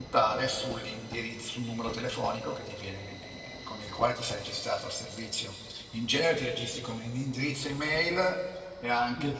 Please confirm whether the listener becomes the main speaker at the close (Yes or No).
No